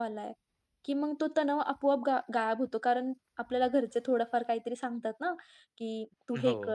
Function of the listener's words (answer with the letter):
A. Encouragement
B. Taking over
A